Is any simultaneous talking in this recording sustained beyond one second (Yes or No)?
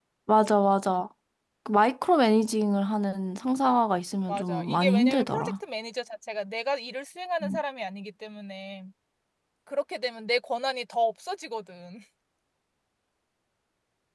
Yes